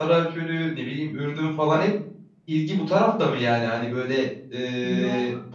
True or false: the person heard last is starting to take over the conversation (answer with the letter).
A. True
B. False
B